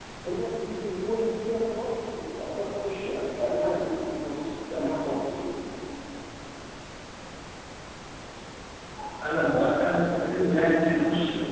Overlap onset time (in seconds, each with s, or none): none